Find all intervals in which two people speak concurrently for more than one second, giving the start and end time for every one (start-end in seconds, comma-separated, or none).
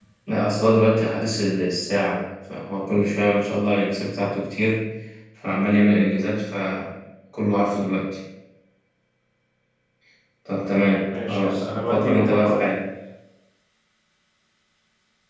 11.0-12.6